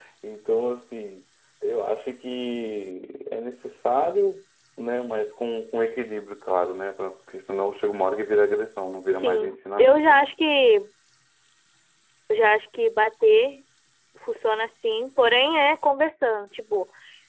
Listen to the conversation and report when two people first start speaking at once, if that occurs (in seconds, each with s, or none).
9.1 s